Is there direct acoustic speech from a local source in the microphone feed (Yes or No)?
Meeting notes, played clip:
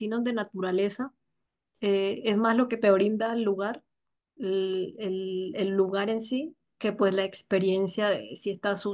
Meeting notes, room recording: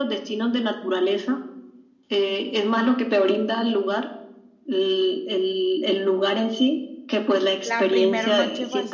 Yes